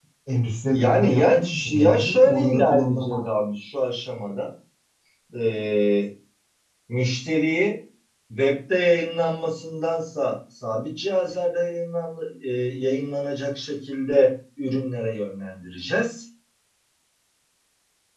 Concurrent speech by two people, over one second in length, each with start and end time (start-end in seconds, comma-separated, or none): 0.7-3.2